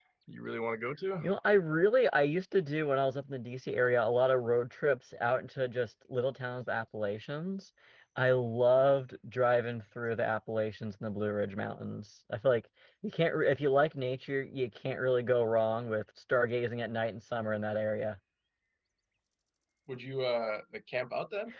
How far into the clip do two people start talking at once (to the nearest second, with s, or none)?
none